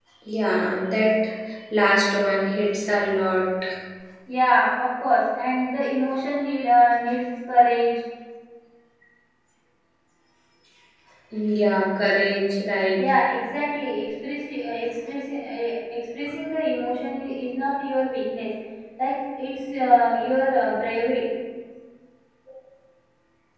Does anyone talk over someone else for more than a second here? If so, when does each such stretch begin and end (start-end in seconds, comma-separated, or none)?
none